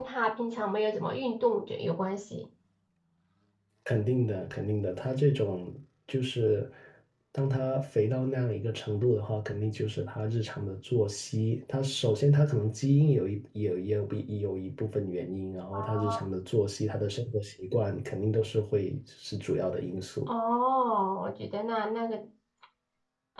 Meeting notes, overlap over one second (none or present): none